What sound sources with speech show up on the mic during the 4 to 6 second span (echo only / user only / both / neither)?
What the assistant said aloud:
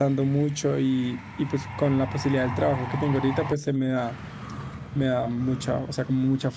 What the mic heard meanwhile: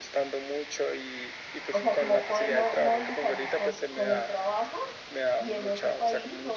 both